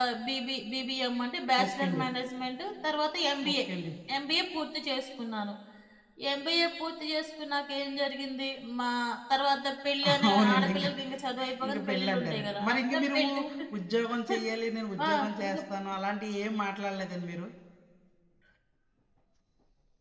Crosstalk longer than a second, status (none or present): present